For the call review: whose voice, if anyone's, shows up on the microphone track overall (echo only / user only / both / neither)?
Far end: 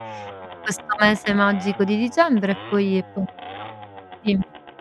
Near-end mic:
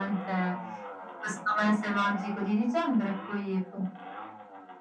echo only